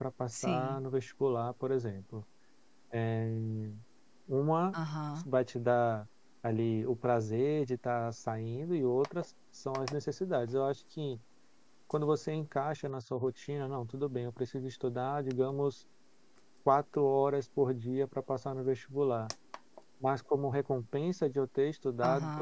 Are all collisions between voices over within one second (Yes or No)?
Yes